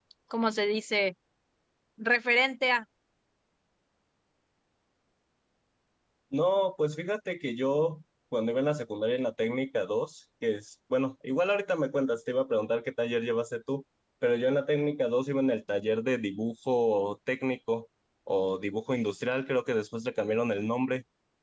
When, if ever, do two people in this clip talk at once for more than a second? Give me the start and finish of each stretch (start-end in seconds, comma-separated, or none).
none